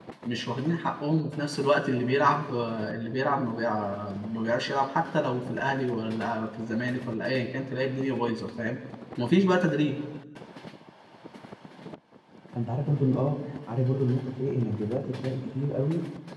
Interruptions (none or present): none